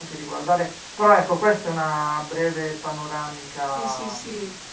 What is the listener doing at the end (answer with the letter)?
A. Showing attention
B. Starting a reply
B